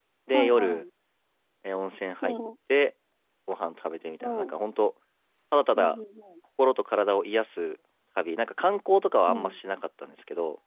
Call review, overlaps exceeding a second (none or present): none